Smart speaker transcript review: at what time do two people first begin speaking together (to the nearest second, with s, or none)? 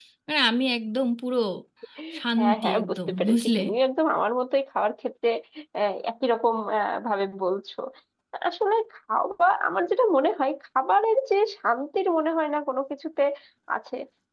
2 s